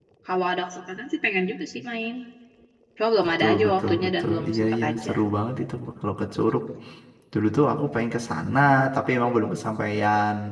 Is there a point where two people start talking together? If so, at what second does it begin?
3.4 s

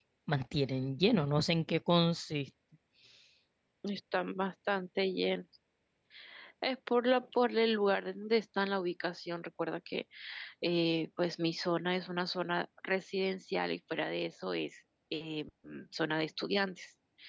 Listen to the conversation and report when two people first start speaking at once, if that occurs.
none

